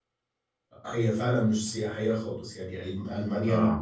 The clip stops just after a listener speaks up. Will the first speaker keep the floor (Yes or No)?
Yes